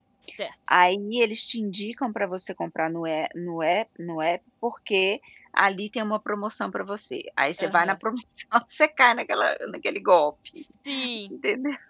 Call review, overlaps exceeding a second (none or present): none